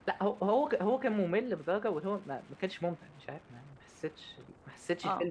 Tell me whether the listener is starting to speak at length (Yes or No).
No